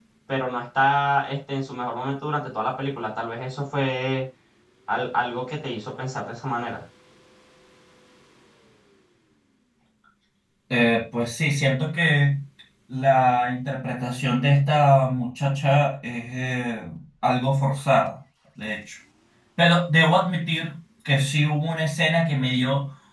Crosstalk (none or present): none